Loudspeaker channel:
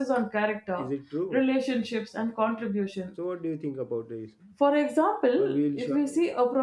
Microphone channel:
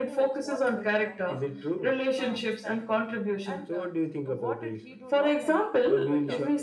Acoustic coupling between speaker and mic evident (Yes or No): Yes